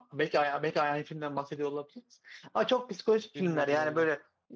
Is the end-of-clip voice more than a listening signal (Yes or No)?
No